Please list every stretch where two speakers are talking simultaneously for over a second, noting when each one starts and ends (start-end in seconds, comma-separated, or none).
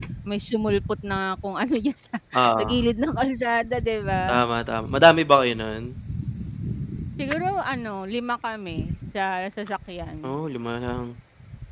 none